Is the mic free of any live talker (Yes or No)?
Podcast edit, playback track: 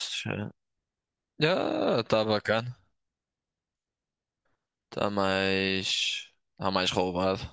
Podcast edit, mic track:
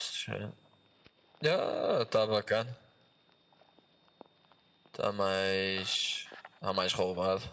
Yes